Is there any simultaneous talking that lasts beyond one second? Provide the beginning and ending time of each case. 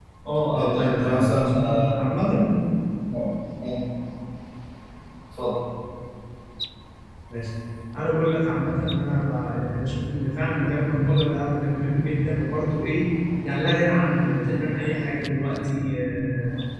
0.5-1.9

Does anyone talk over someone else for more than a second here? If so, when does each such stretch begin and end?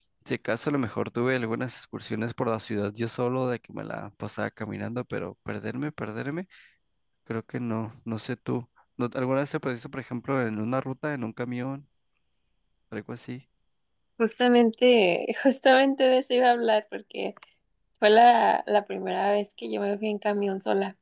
none

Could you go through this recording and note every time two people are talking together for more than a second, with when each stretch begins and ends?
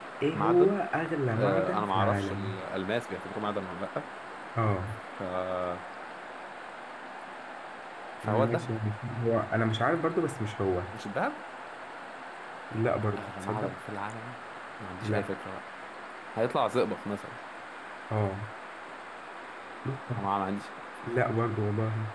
1.4-2.6

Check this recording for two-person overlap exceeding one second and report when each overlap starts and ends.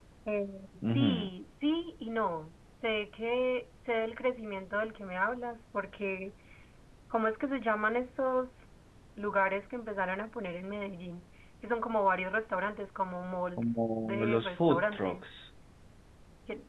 13.6-15.2

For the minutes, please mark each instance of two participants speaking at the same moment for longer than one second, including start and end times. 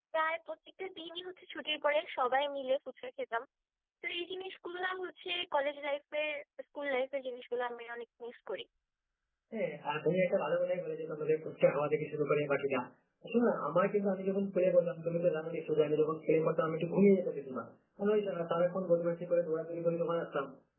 none

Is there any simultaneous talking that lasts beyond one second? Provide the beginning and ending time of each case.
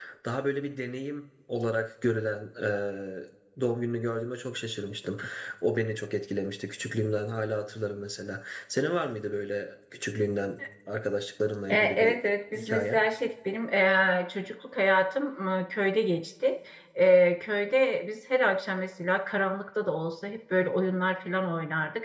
none

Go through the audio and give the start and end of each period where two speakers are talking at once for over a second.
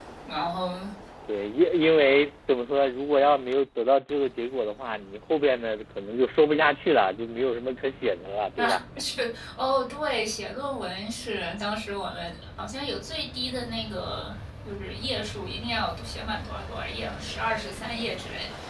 none

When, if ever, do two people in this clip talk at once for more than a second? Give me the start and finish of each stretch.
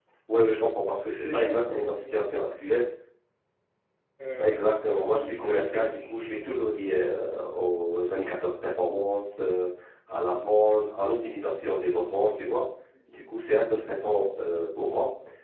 1.0-2.2, 5.1-6.6

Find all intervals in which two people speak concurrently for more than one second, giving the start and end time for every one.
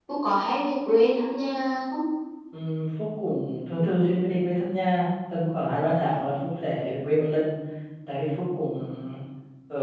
none

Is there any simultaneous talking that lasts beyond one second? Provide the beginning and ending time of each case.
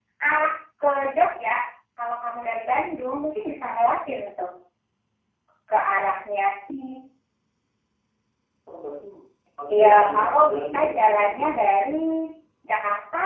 9.7-11.5

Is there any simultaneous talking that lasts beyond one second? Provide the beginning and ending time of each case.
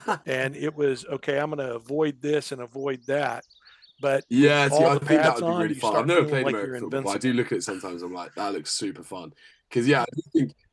4.3-7.2

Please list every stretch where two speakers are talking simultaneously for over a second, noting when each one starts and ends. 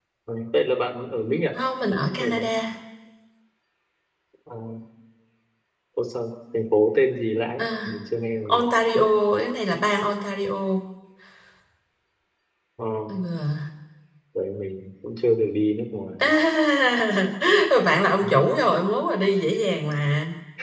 none

